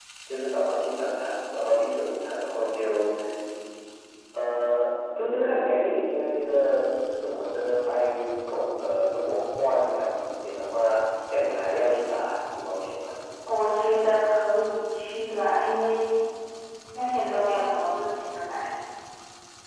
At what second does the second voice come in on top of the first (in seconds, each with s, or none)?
none